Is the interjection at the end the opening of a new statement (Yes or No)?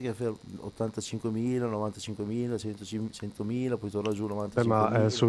Yes